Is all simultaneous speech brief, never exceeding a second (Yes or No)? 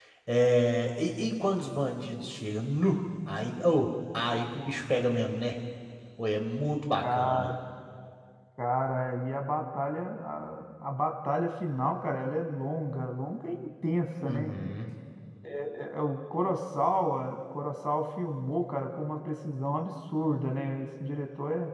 Yes